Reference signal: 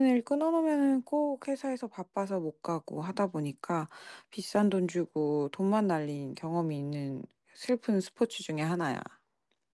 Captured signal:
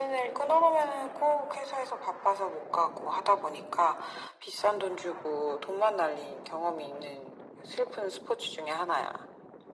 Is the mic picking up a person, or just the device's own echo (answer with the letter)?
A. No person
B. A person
A